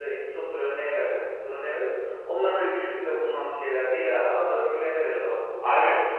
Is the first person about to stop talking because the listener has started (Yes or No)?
Yes